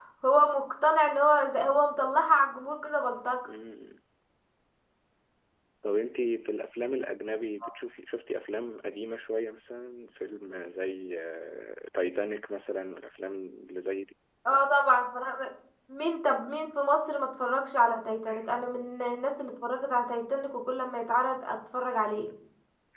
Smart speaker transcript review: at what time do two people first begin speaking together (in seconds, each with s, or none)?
none